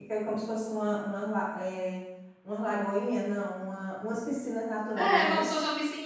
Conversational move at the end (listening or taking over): taking over